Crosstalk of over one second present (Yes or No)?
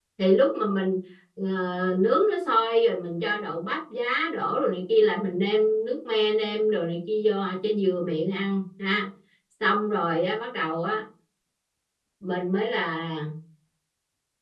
No